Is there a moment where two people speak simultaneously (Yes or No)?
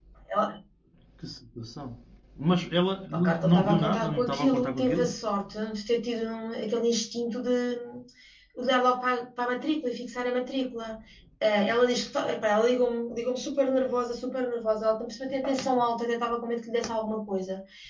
Yes